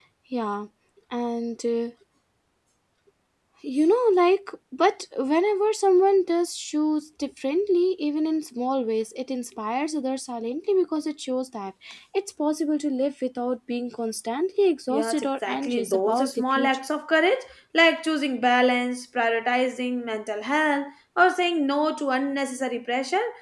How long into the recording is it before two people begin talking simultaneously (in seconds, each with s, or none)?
14.9 s